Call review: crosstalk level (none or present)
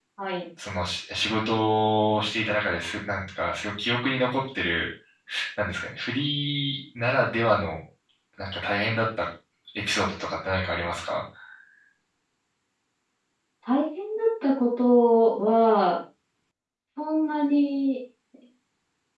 none